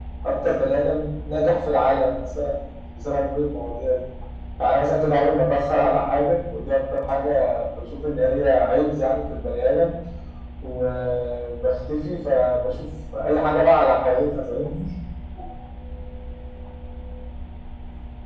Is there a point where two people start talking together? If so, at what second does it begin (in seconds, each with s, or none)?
none